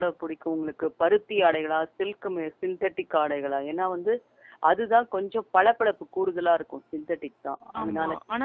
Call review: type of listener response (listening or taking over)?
taking over